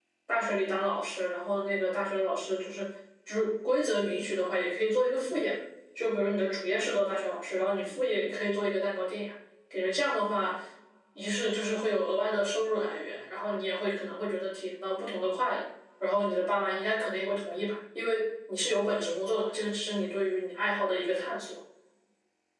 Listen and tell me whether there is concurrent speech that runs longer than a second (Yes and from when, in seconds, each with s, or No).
No